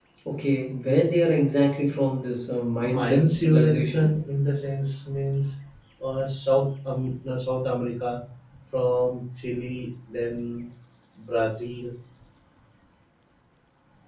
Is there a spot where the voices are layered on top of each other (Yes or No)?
Yes